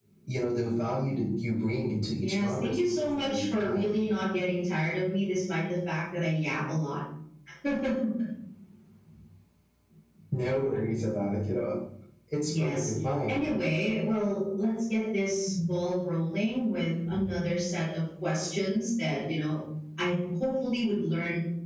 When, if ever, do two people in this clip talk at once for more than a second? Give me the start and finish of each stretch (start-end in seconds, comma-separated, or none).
2.2-3.9